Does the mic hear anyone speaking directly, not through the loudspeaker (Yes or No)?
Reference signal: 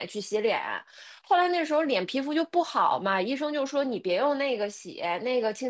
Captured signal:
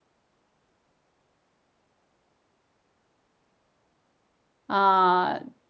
Yes